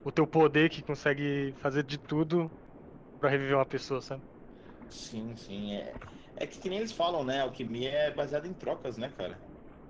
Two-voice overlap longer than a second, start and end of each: none

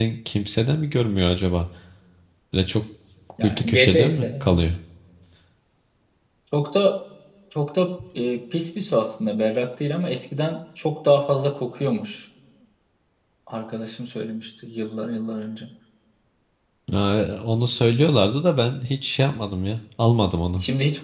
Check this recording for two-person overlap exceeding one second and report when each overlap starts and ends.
3.4-4.6

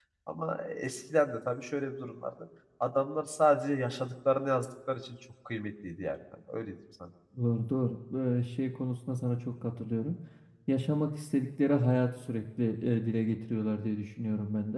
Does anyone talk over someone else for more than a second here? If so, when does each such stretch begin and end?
none

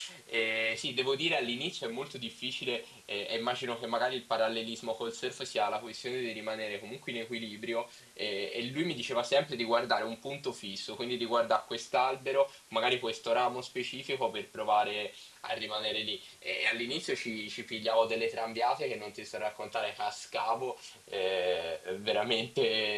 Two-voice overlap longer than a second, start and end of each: none

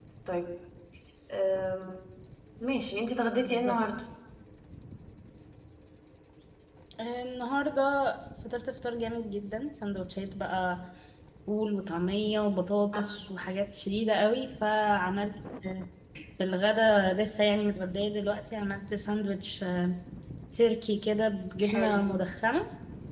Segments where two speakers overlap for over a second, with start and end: none

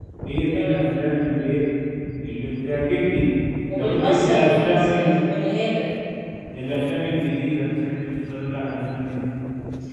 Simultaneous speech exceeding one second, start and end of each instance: 3.8-5.1

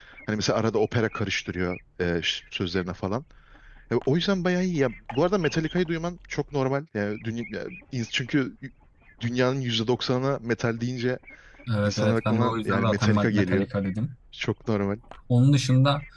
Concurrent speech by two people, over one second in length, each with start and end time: 11.8-13.7

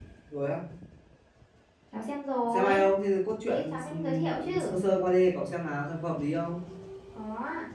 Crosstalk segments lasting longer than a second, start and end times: 3.5-4.7

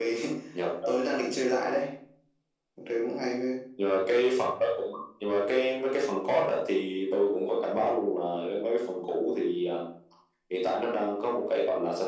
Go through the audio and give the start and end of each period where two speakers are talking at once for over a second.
none

